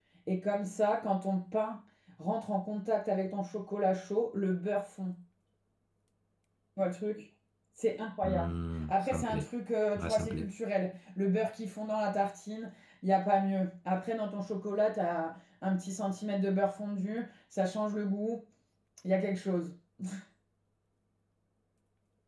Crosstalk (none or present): present